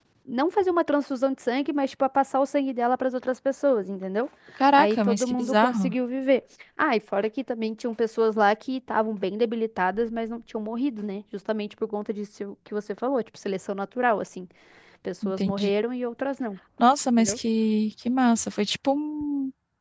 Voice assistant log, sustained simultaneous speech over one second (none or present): present